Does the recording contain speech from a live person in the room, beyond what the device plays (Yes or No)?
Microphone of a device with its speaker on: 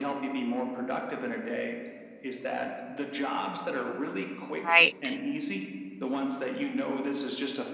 Yes